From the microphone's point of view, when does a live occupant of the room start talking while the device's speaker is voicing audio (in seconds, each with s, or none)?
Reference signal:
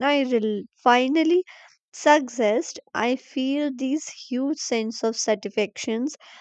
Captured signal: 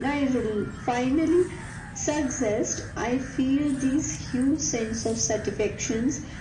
none